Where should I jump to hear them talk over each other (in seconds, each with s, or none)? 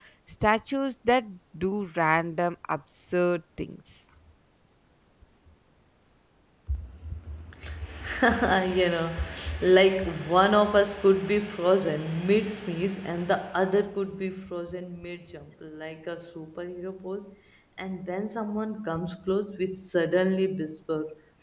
none